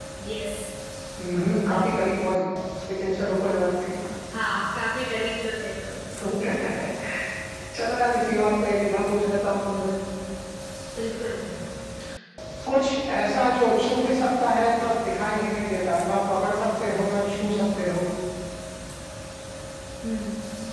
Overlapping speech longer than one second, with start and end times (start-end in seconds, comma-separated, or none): none